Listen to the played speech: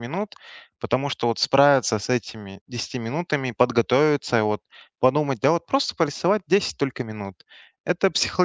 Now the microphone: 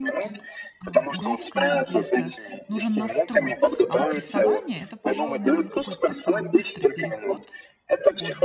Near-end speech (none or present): present